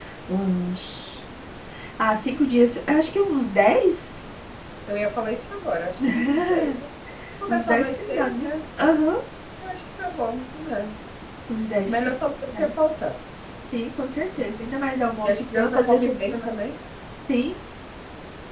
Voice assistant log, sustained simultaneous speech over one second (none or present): present